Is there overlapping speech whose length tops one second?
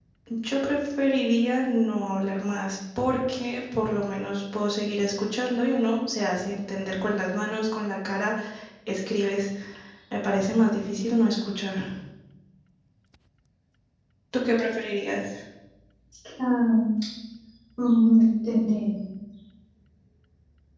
No

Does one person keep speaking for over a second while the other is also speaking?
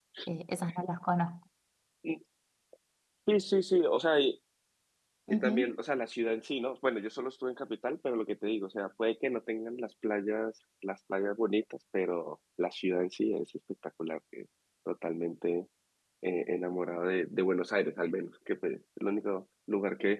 No

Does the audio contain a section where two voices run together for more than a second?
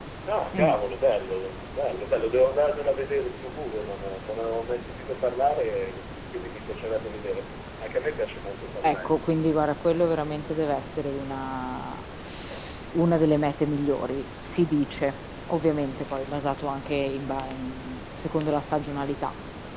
No

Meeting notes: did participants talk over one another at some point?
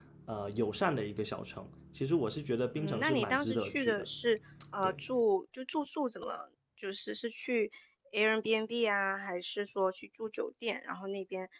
Yes, from 2.8 s

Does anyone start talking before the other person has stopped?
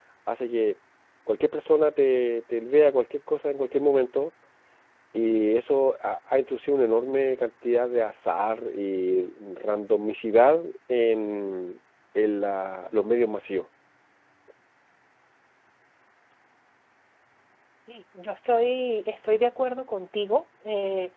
No

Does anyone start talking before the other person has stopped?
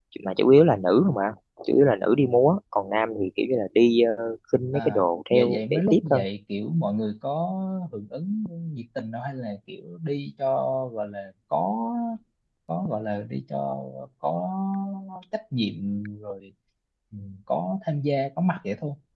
Yes, from 4.7 s

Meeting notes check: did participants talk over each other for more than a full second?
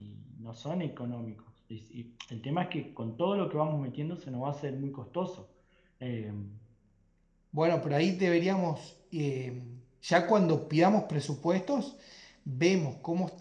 No

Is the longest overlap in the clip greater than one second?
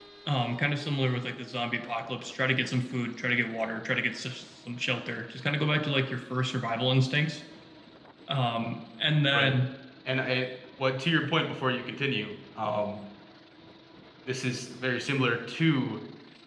No

